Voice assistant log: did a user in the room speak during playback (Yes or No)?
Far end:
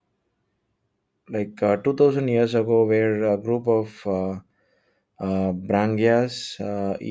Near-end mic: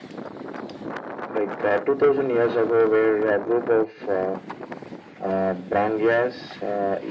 No